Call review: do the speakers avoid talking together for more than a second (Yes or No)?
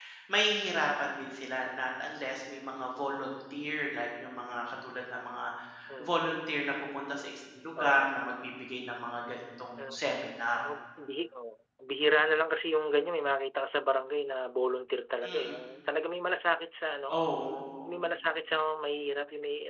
Yes